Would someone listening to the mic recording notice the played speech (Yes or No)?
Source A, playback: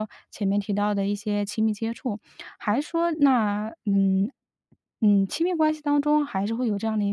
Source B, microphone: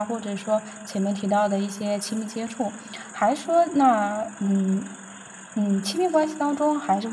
Yes